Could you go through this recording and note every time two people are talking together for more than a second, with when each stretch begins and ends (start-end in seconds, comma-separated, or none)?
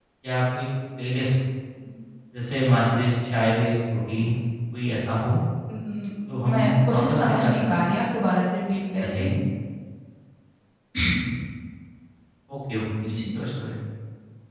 6.5-7.8